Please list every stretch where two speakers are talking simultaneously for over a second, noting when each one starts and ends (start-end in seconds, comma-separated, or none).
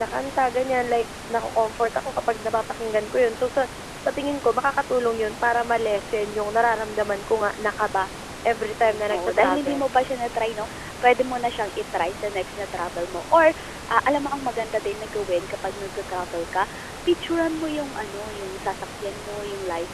8.6-9.9